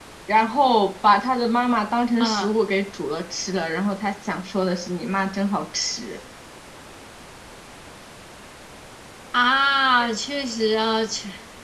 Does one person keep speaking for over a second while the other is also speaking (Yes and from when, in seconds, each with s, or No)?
No